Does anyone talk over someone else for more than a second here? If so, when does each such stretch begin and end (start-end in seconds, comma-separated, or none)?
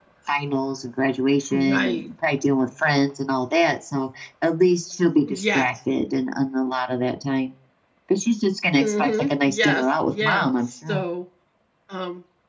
8.8-11.0